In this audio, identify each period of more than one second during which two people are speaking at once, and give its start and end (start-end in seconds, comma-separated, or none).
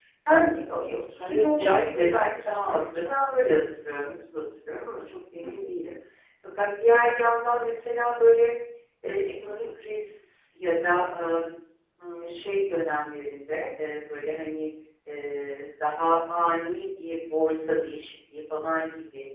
1.2-3.1